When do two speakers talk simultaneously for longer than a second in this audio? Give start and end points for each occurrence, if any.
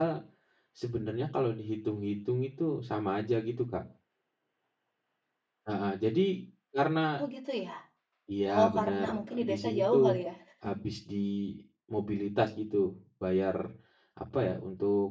8.5-10.0

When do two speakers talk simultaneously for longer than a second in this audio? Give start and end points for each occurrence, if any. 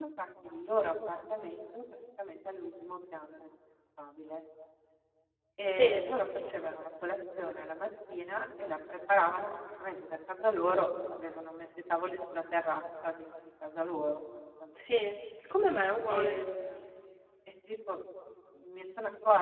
none

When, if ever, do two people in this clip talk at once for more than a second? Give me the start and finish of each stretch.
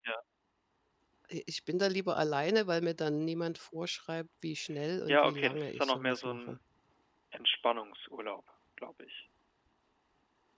5.1-6.6

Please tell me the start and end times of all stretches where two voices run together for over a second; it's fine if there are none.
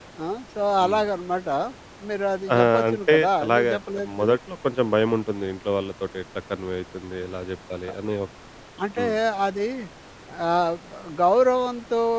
2.5-3.7

